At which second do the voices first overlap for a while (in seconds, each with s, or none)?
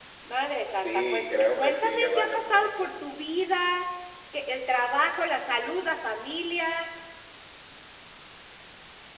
0.7 s